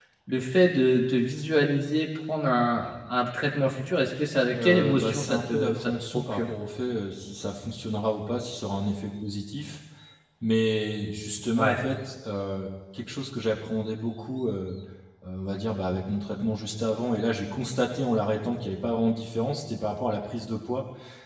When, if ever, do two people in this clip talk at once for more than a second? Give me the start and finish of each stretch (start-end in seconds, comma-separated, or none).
4.5-6.5